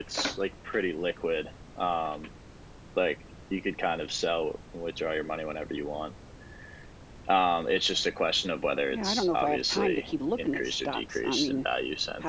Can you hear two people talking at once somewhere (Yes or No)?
Yes